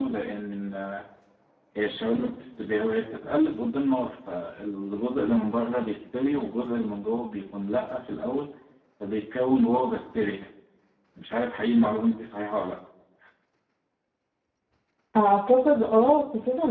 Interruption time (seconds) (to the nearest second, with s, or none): none